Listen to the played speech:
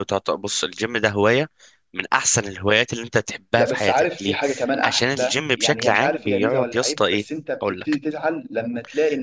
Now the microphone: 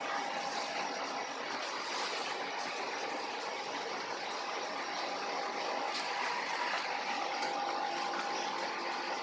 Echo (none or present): none